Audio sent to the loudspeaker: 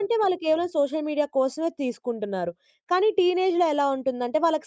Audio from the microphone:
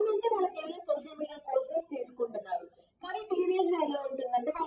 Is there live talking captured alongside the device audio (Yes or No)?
No